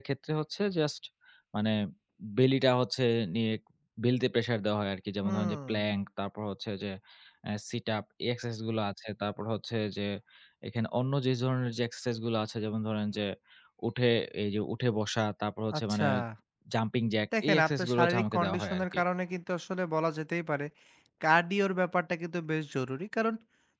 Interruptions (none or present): present